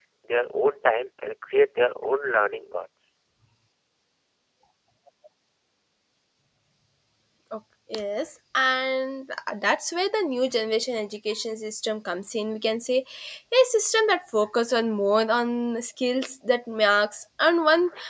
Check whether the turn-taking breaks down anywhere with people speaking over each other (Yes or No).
No